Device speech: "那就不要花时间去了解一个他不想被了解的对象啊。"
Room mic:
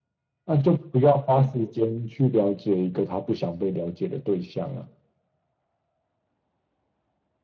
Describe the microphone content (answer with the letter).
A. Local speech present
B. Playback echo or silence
B